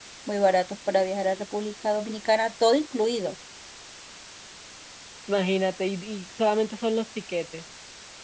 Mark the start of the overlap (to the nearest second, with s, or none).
none